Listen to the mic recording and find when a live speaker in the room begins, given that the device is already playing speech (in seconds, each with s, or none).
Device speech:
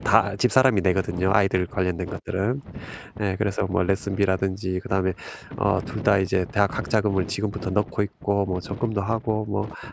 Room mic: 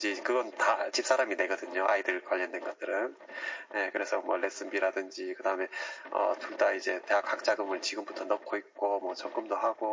none